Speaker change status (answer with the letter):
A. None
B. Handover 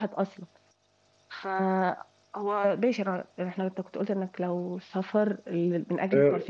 B